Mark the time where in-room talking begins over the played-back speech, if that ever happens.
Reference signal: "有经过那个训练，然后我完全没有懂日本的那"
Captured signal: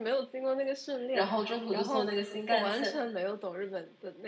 1.1 s

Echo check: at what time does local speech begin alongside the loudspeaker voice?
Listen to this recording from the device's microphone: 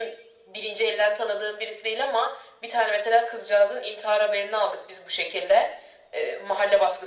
none

